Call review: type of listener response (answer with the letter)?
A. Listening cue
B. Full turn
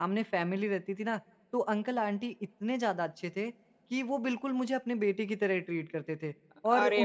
A